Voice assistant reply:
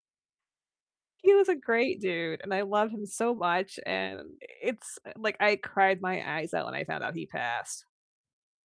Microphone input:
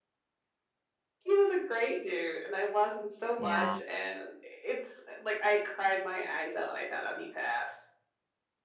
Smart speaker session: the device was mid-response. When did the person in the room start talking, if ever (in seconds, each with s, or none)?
3.4 s